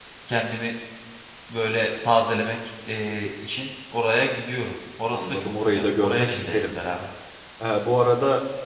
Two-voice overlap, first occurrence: 5.1 s

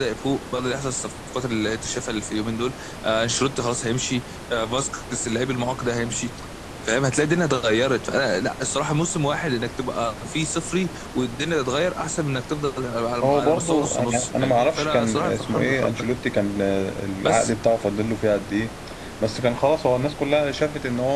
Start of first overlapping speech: 13.2 s

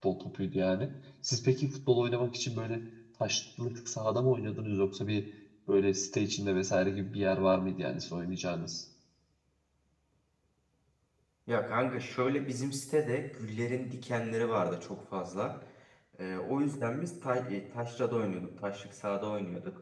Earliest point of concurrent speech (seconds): none

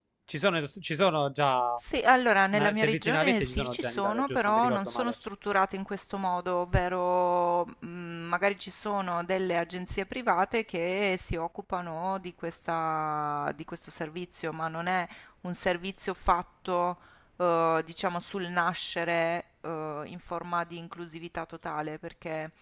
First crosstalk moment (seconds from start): 2.5 s

